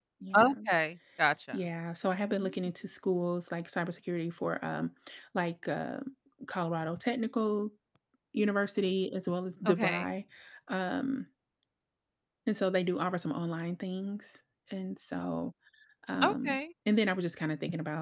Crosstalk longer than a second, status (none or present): none